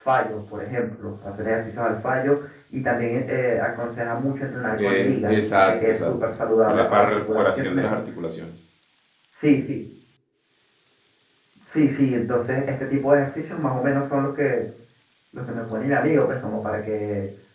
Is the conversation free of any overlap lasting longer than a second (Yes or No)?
No